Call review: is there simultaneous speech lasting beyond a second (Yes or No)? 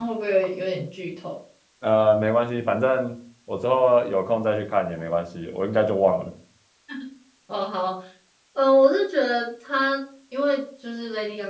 No